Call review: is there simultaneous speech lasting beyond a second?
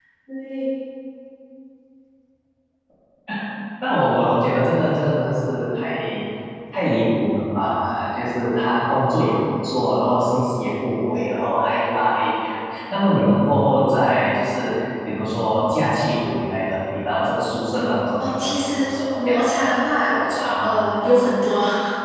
Yes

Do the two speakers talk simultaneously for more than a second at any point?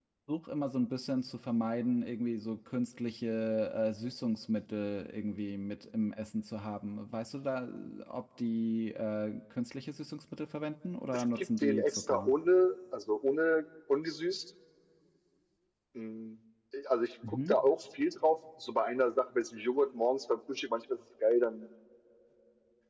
Yes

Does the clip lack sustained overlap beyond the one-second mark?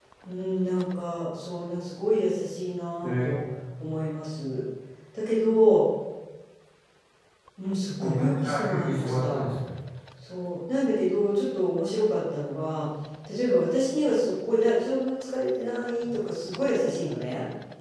No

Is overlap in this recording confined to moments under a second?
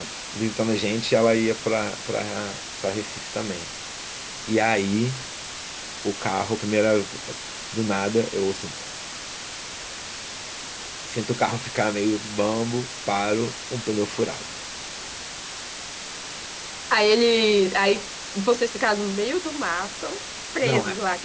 Yes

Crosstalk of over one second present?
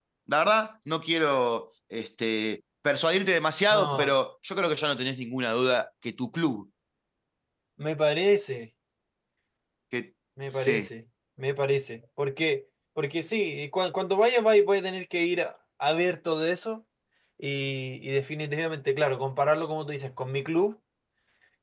No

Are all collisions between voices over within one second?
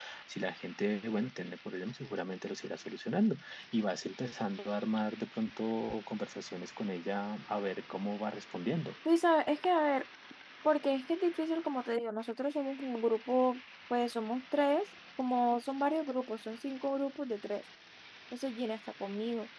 Yes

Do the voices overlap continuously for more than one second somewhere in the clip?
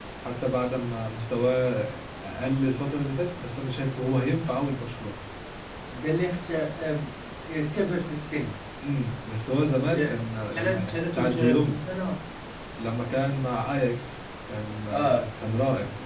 Yes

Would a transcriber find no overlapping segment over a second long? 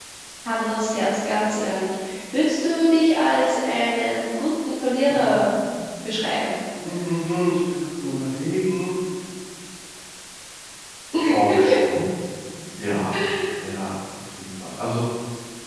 Yes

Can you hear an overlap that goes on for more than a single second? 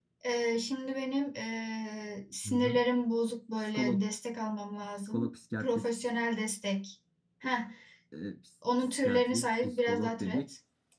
Yes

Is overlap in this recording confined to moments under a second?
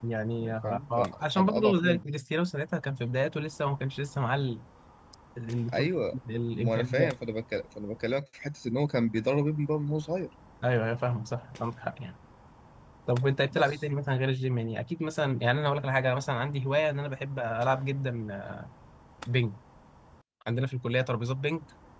No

